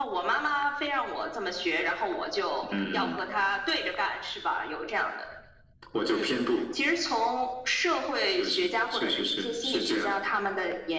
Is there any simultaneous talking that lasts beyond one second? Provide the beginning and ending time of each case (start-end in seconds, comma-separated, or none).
8.3-10.2